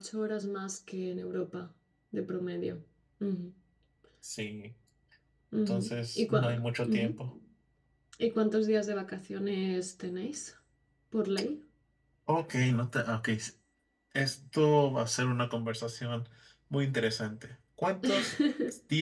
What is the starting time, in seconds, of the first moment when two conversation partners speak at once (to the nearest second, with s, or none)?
6 s